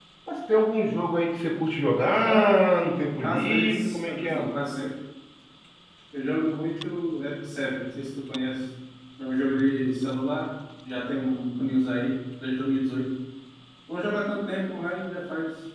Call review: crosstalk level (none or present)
present